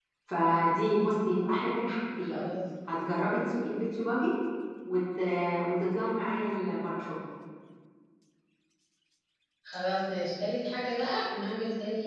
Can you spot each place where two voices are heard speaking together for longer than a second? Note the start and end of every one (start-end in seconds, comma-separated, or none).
none